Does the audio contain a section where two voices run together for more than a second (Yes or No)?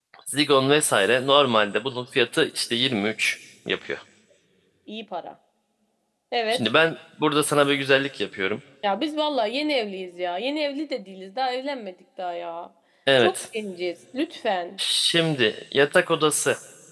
No